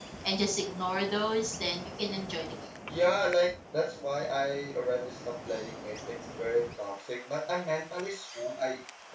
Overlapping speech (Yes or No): No